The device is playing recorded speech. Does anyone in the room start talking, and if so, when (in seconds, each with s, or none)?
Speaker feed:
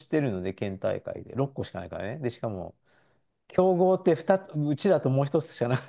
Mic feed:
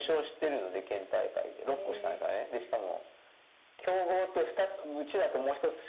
1.7 s